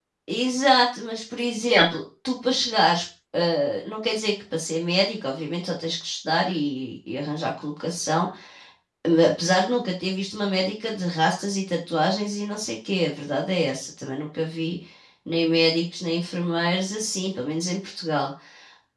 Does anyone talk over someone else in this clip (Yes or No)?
No